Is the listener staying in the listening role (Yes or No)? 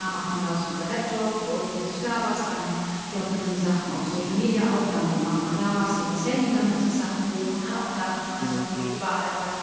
Yes